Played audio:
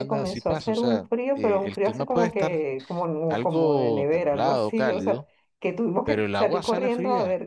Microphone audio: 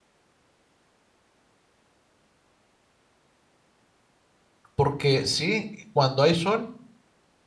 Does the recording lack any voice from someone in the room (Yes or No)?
No